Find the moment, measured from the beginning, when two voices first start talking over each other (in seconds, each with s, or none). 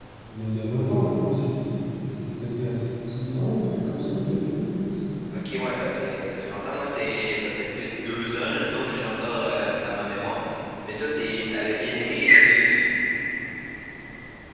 none